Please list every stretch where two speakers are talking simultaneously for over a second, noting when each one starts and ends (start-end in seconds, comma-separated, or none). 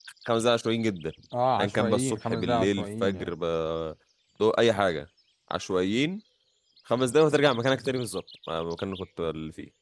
1.6-3.3